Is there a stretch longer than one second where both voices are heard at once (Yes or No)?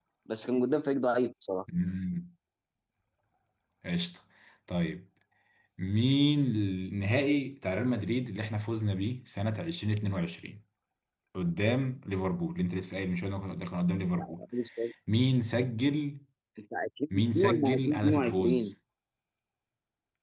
Yes